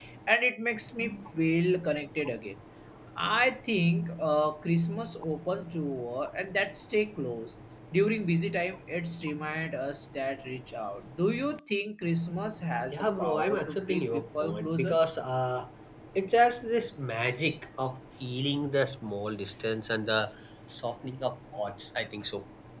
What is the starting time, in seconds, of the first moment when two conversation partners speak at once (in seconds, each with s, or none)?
12.9 s